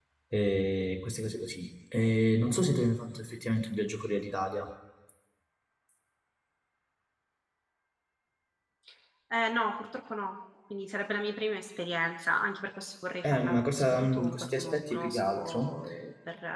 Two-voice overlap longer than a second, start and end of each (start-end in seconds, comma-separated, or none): 13.2-15.8